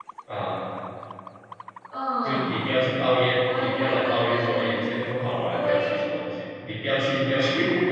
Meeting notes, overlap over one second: present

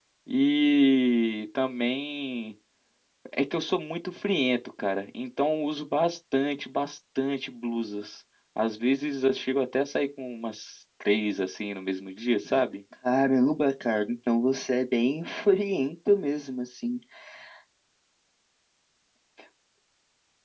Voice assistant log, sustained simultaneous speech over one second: none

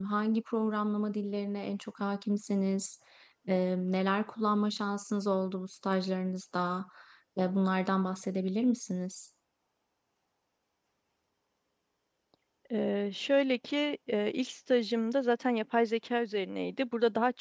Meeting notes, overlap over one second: none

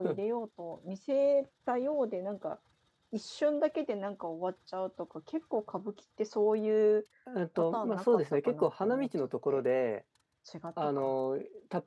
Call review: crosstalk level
present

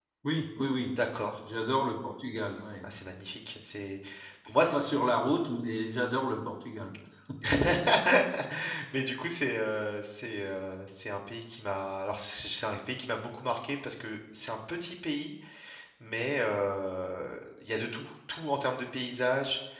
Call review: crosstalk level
none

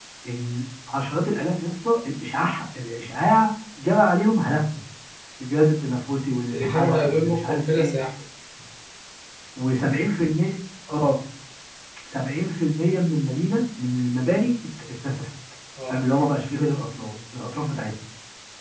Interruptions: present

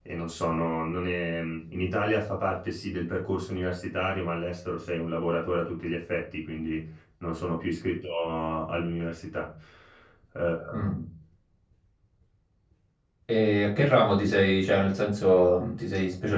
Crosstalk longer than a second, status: none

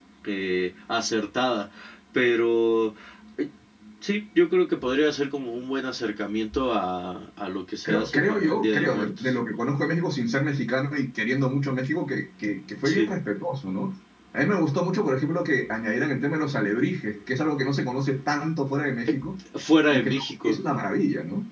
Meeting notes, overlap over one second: present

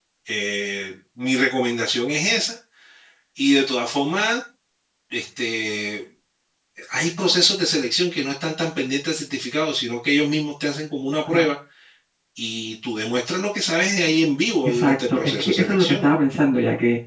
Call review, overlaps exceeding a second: present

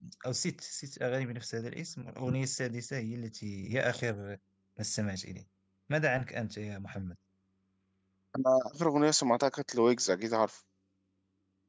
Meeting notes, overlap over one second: none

